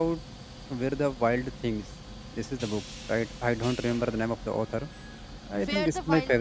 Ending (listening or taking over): taking over